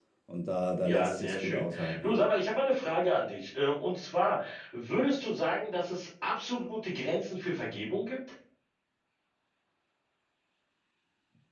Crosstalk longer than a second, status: present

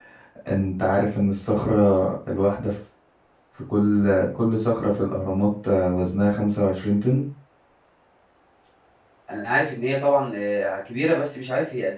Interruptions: none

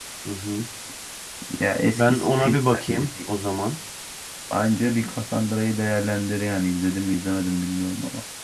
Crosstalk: present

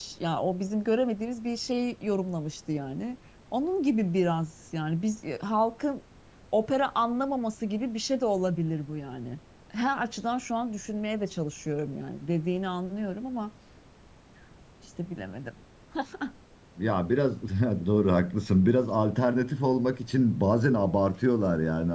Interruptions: none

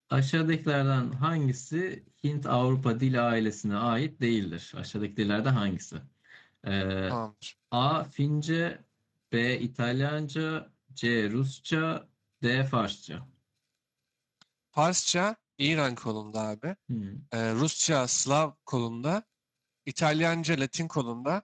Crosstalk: none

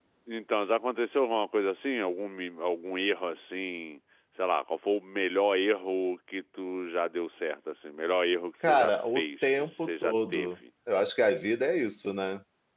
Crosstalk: present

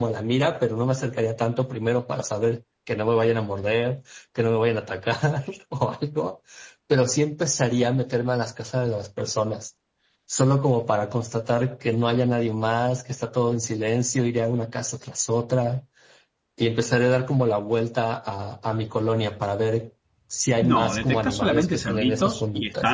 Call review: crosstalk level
present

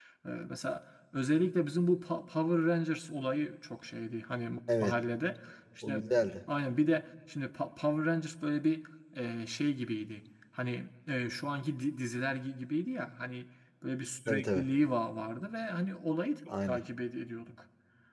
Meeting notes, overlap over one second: none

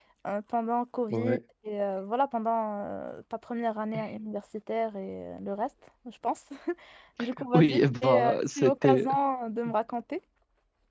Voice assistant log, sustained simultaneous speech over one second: present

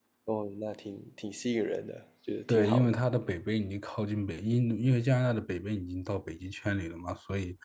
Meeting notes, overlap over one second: none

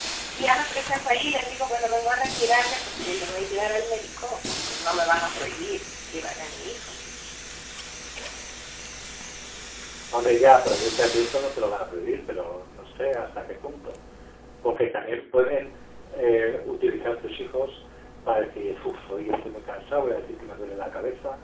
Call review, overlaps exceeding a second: none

